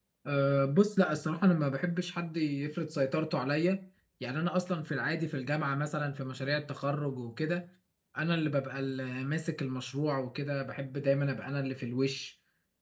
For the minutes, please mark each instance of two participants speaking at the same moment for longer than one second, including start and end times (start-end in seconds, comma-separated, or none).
none